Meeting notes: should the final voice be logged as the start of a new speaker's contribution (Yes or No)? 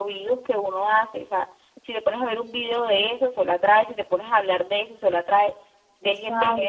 No